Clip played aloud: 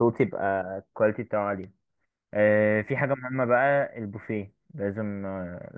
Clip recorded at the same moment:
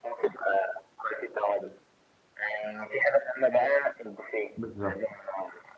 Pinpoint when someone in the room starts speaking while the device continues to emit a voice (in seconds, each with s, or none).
4.6 s